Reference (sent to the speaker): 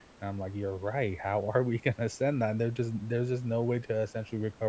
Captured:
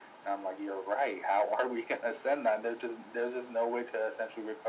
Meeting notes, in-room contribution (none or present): none